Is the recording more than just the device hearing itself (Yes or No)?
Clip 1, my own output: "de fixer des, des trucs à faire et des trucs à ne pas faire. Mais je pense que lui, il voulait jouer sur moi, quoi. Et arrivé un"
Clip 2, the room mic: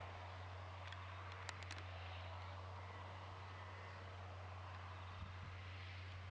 No